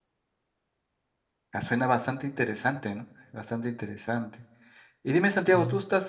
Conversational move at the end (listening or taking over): listening